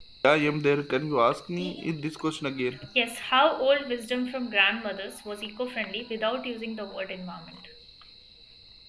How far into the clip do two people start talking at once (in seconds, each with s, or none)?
none